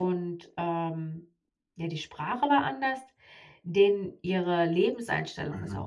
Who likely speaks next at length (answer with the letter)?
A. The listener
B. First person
B